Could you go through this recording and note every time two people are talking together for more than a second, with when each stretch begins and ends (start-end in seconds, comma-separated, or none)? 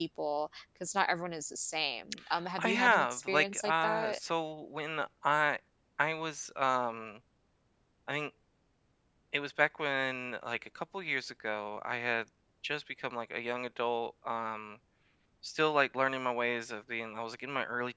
2.6-4.2